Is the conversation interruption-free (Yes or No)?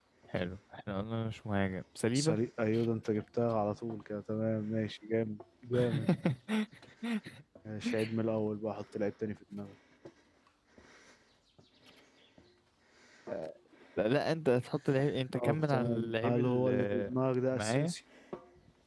No